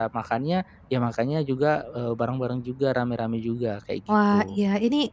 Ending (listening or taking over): taking over